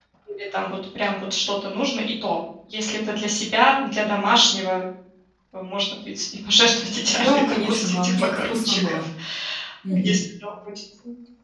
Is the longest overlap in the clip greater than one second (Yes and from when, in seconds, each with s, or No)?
Yes, from 7.0 s